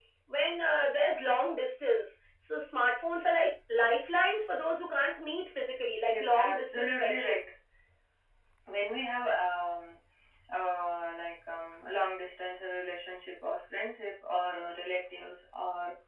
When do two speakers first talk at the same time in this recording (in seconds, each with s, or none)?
6.1 s